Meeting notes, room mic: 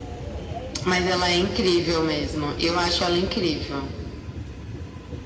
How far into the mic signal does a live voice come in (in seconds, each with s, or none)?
none